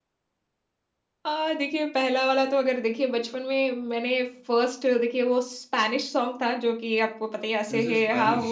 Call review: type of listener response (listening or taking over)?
listening